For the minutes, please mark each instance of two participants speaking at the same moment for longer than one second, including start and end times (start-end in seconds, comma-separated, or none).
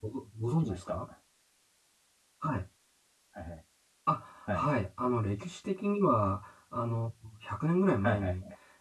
none